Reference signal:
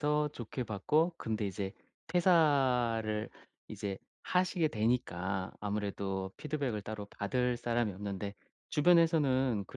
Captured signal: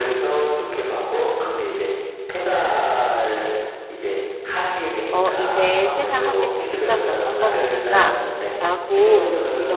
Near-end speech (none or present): present